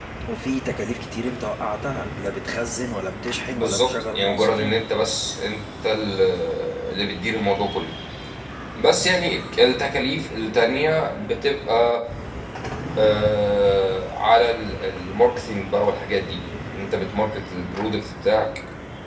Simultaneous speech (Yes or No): Yes